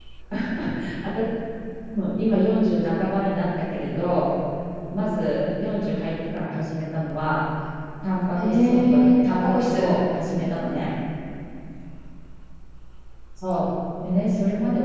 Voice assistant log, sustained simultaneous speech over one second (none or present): present